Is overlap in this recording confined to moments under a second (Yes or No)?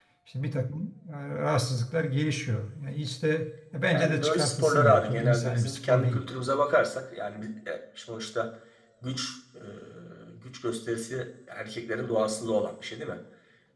No